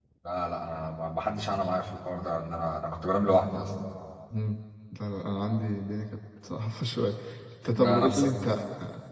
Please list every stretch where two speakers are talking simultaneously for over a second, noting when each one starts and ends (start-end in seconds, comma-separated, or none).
none